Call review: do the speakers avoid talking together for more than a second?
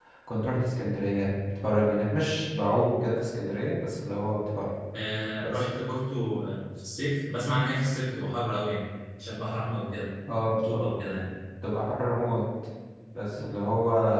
Yes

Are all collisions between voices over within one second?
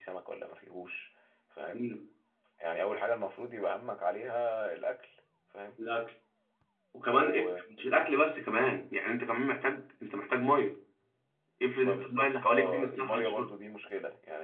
No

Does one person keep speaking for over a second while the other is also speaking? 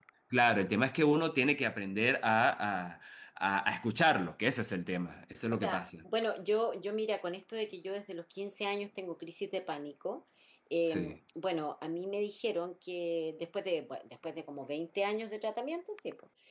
No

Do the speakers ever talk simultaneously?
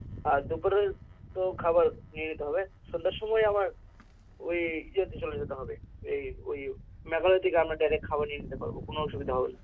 No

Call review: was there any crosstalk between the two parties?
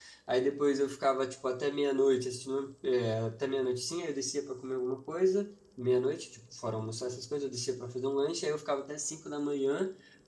No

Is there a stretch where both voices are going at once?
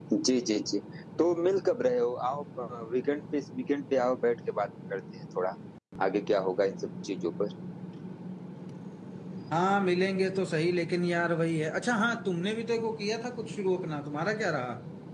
No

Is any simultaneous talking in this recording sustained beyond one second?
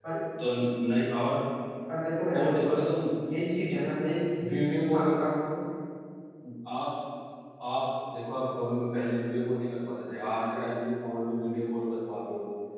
No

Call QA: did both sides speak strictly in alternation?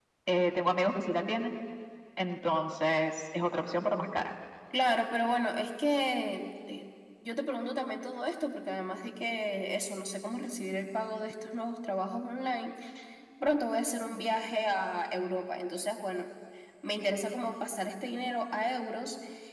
Yes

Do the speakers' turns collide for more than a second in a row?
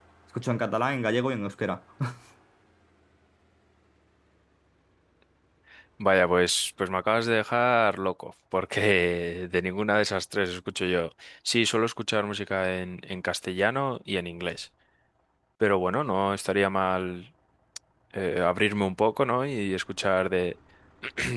No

